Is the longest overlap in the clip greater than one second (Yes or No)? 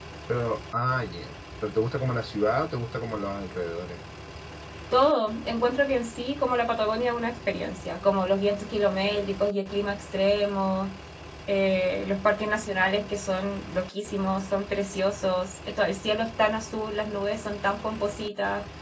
No